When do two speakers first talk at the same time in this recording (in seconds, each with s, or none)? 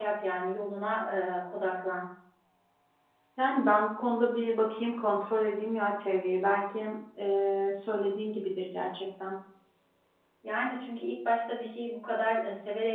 none